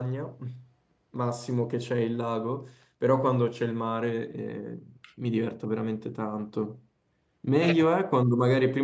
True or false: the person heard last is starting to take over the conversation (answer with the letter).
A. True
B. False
B